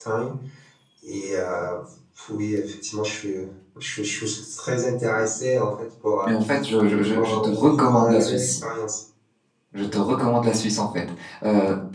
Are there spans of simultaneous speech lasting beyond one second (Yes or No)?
Yes